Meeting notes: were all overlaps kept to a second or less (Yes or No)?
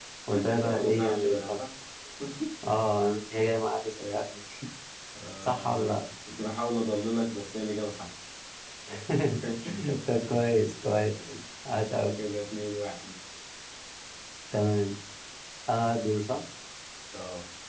No